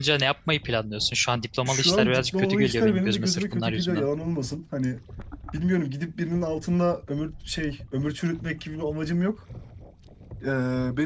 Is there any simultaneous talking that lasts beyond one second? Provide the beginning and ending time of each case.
1.6-4.1

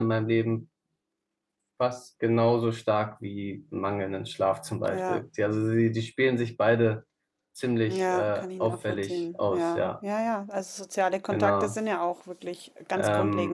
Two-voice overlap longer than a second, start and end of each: 7.9-9.9

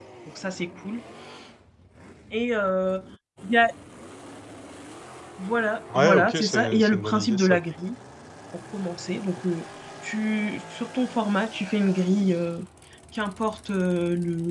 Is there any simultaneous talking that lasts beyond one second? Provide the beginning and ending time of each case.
5.9-7.5

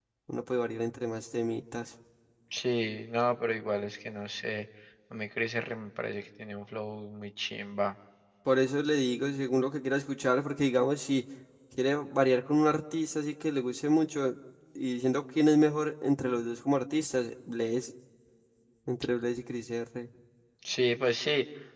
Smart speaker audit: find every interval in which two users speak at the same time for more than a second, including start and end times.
none

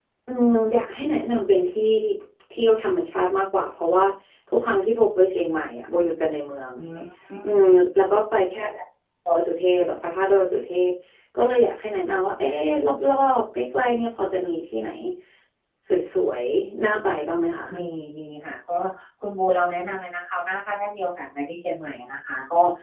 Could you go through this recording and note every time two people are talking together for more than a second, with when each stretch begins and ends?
none

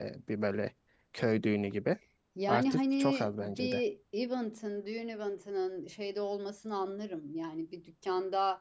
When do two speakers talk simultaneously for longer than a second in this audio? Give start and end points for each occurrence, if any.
2.5-3.8

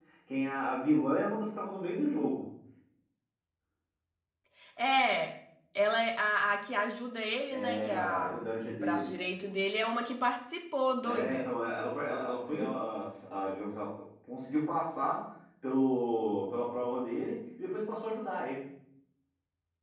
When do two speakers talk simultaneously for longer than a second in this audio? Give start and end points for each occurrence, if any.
7.5-9.1

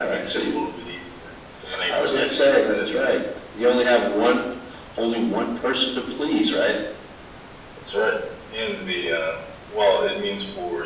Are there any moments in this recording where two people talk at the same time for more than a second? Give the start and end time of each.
1.9-3.1

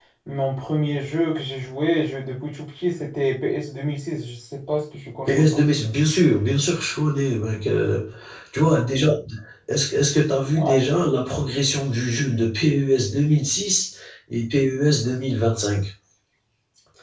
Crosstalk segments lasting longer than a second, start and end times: none

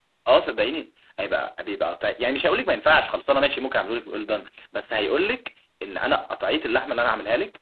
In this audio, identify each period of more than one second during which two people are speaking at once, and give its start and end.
none

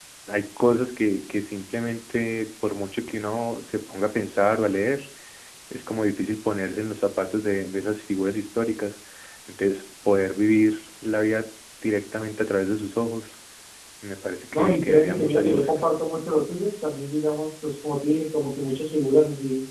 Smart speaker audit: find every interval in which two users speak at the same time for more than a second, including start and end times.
14.5-15.8

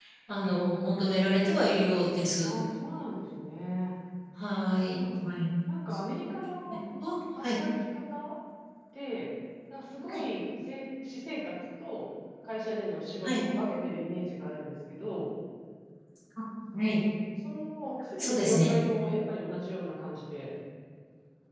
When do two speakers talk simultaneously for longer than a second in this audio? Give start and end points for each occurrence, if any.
none

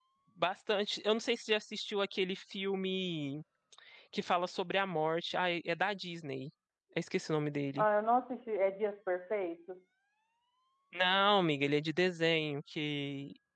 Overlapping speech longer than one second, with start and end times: none

